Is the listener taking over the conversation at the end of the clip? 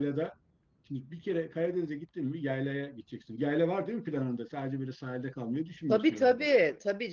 Yes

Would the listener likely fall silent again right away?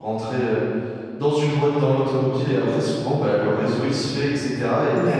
Yes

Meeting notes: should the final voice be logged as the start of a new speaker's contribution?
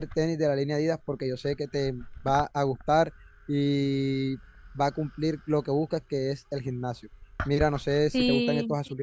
No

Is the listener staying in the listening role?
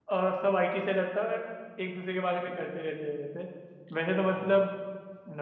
Yes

